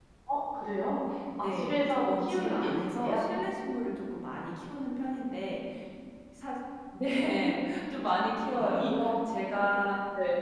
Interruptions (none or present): present